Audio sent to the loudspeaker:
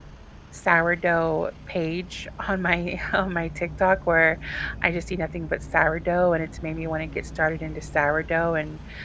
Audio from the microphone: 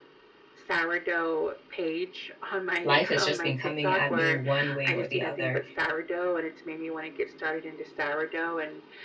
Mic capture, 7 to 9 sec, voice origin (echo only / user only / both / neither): echo only